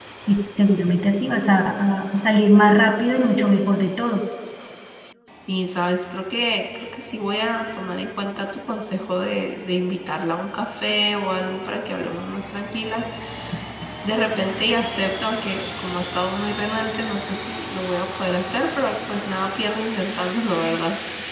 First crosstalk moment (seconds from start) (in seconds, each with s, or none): none